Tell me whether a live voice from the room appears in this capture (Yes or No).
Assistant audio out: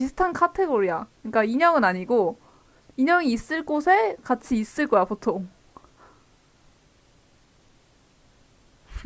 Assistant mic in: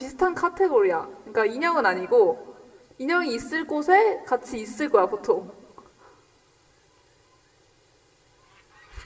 No